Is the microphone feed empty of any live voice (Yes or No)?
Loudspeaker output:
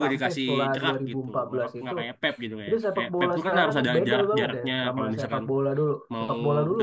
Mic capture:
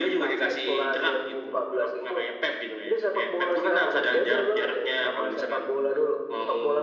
Yes